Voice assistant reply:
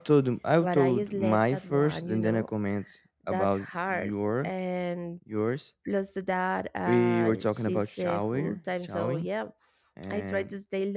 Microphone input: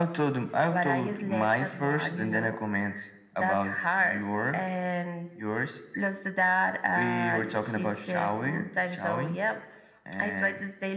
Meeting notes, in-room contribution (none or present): none